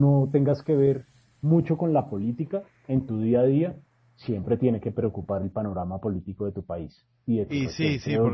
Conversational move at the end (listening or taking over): taking over